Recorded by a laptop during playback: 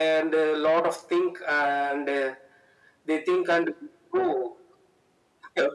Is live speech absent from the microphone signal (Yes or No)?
Yes